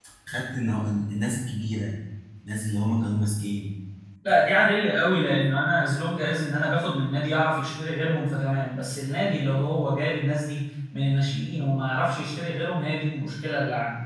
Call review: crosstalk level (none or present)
none